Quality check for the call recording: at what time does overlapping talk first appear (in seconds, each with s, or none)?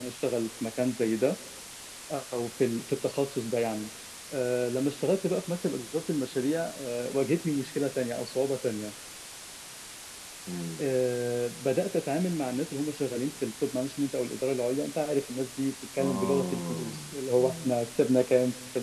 16.0 s